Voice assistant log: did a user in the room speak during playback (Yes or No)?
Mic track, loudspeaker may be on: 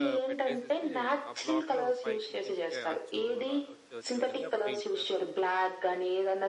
Yes